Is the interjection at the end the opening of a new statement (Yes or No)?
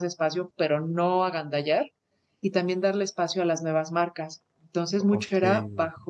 No